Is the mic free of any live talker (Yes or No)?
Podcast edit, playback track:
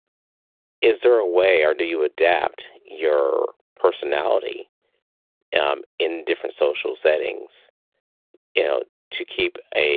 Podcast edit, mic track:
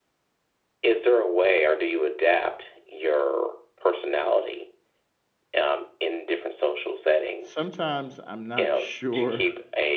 No